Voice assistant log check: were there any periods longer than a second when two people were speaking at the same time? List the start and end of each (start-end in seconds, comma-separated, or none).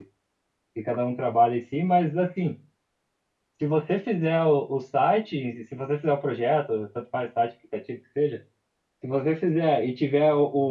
none